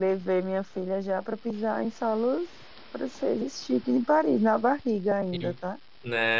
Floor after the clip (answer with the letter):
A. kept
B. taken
B